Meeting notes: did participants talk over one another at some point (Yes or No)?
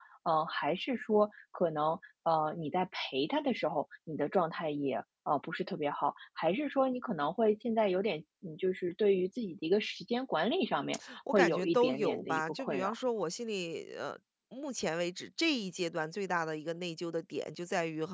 Yes